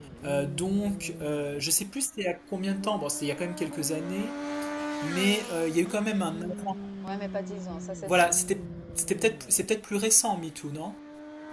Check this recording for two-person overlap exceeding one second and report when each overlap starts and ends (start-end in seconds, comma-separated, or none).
none